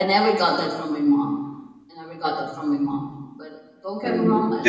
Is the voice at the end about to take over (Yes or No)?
Yes